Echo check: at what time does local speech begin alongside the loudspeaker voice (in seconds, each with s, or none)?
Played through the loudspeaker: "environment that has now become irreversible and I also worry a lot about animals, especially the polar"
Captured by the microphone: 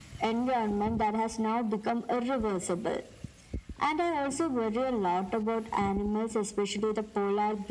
none